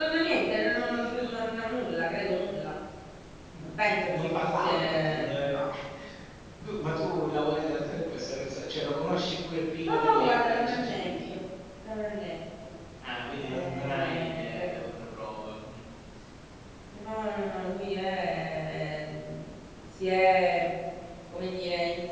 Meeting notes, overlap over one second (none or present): present